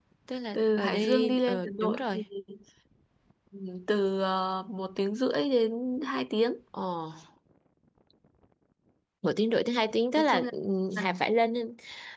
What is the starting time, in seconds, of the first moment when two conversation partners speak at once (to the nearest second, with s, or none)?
1 s